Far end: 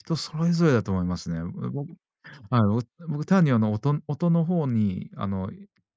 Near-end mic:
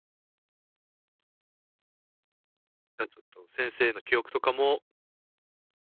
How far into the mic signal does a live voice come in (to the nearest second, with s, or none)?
3 s